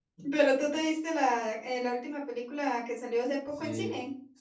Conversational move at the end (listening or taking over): taking over